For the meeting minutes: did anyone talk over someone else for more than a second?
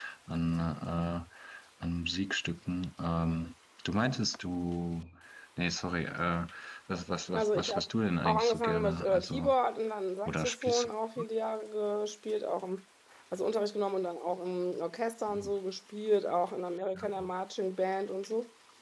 Yes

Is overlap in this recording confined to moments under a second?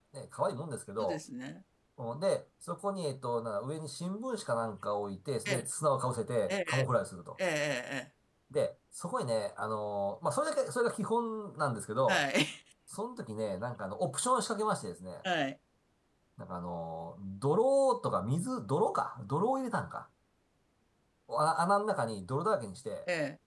Yes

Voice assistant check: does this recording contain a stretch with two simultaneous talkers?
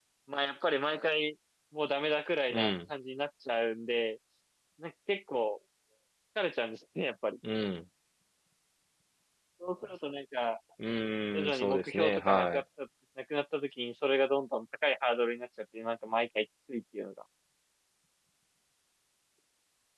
Yes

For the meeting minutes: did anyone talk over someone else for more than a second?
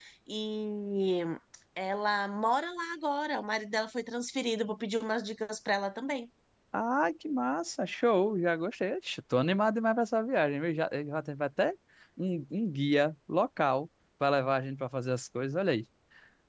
No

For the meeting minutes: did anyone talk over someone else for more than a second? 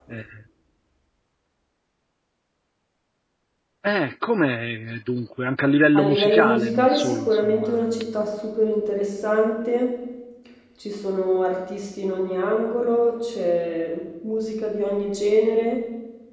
Yes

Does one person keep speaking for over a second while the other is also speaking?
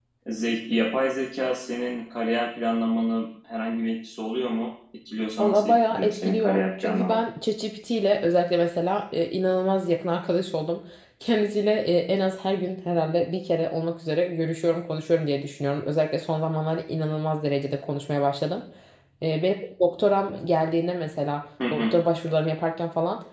Yes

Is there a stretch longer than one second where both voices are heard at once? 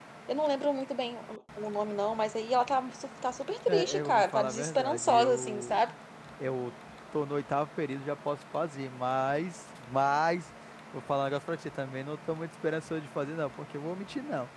Yes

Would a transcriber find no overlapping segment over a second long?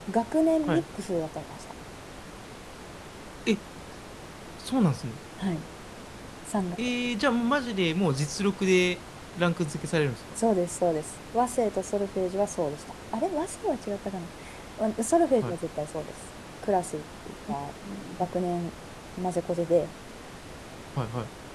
Yes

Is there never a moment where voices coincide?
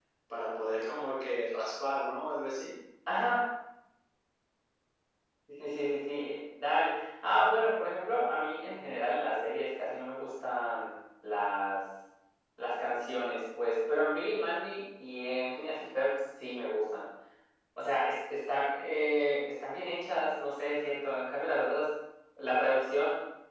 Yes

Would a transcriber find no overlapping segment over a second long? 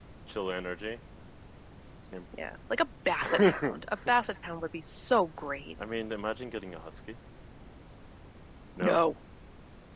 Yes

